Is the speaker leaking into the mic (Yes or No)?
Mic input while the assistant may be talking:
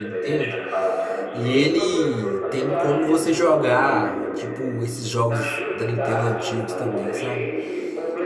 Yes